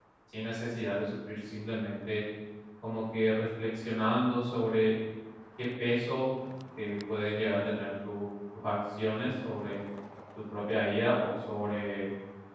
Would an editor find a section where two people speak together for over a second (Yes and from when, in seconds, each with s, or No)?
No